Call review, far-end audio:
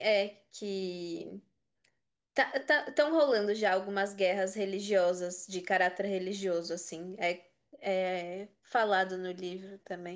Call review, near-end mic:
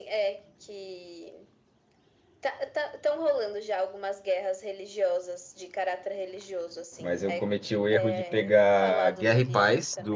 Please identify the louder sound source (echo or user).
user